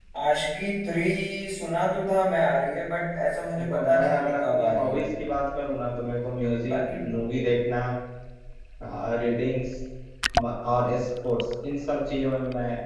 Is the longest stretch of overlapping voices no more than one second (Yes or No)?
No